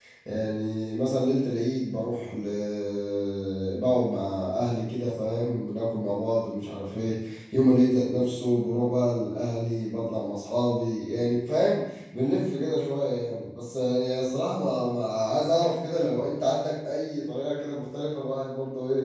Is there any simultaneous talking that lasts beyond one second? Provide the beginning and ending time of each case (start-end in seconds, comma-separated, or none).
none